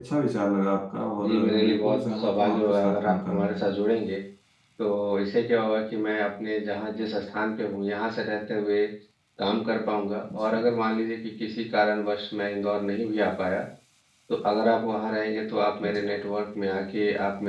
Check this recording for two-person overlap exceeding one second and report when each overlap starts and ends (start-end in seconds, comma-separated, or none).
1.2-3.7